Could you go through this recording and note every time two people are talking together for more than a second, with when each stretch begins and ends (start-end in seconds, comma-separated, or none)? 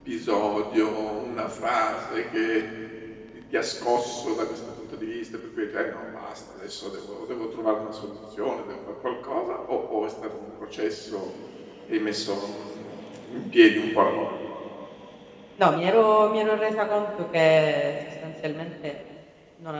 none